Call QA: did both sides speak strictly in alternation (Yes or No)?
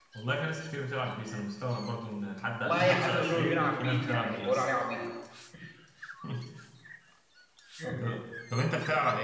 No